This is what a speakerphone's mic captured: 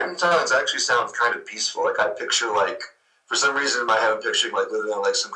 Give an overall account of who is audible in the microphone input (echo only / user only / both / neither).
echo only